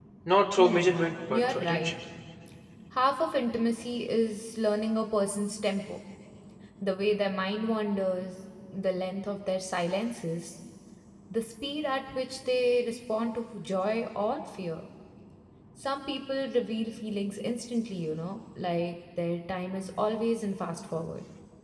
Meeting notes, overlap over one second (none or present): present